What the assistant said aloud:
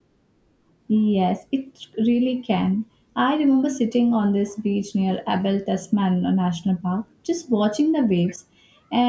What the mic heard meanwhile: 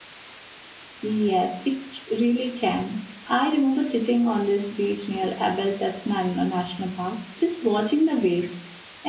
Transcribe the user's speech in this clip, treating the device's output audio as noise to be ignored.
none

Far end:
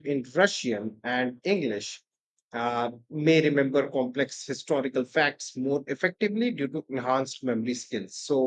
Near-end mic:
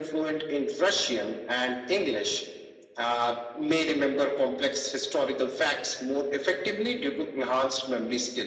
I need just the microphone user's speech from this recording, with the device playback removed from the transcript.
none

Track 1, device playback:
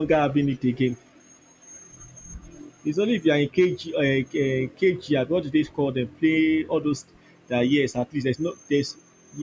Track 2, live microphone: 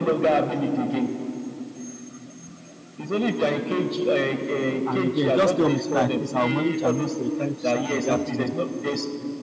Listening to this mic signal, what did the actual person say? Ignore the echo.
an event. Just tell me so that at least I'll manage and look for a time to sleep in the afternoon.

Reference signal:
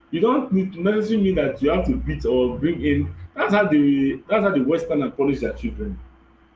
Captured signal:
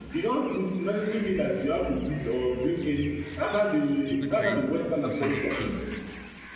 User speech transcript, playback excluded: a good parenting, also need cane

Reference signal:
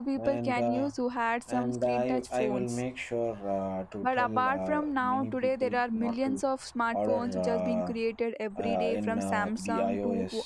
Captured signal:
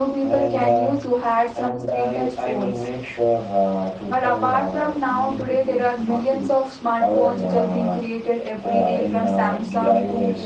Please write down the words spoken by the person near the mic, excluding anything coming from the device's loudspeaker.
none

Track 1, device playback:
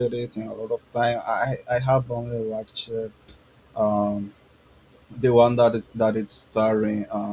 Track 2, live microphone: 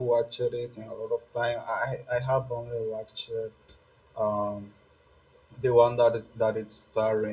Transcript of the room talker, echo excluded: none

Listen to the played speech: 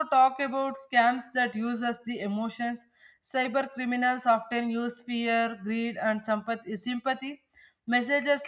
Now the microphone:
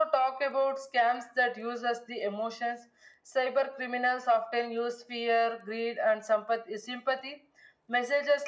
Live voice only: none

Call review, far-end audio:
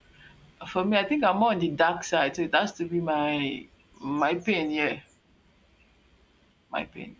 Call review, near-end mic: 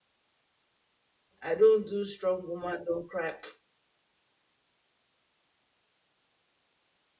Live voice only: I don't do strong woman don't cry.

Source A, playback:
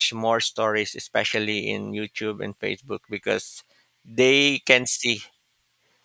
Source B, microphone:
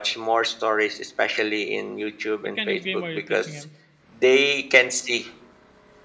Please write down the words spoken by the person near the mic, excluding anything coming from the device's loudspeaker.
What kind of game are you teaching him?

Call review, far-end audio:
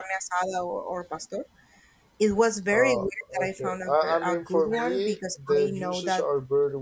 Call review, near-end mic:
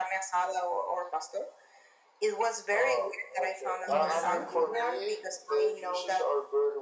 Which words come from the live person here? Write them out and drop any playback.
in the south,

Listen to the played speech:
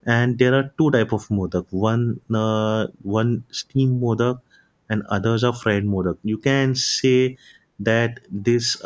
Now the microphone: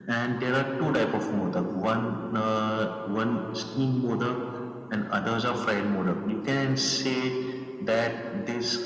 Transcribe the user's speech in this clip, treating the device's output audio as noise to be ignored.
none

